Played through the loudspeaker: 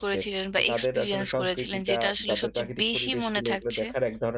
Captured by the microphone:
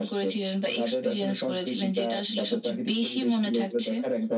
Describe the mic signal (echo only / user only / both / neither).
echo only